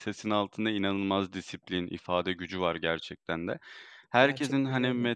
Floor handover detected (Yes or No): No